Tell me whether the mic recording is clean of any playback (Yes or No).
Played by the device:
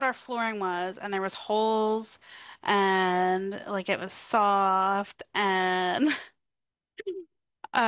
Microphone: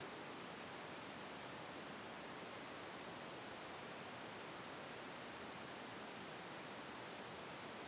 Yes